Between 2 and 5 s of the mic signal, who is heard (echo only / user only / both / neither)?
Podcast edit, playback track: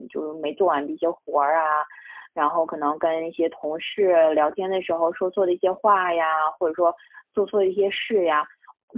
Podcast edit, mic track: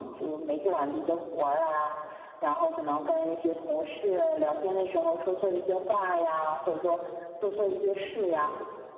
echo only